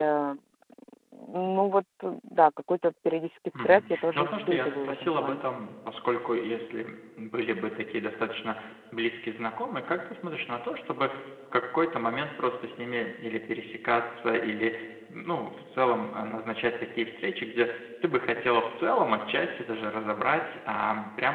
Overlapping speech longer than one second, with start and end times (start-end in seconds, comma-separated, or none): 3.5-5.4